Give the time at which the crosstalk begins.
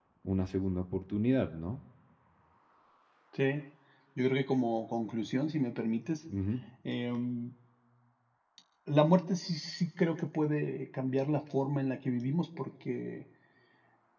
none

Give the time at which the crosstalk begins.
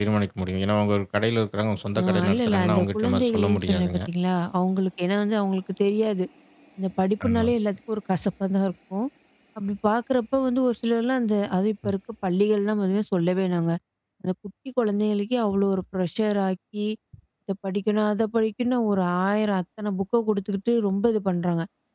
2.0 s

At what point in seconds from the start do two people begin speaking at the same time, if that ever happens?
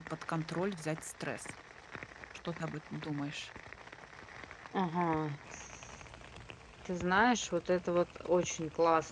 none

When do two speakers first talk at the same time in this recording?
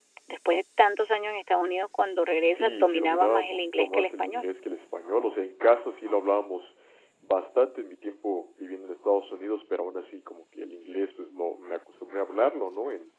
2.5 s

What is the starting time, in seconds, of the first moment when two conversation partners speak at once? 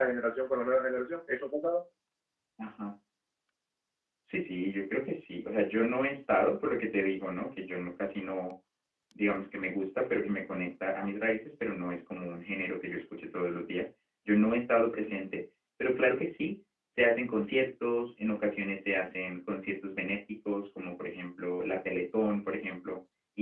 none

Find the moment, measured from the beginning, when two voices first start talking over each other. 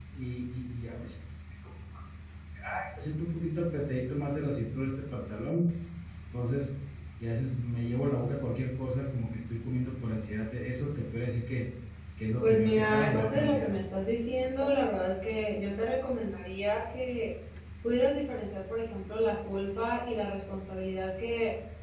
12.4 s

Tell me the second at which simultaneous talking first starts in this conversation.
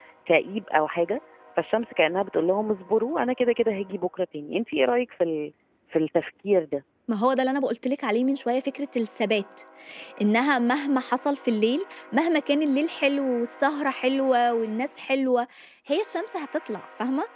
none

